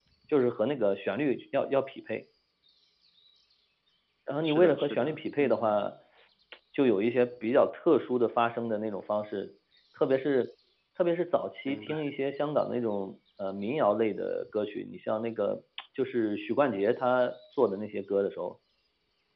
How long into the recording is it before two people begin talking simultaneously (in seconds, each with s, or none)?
4.4 s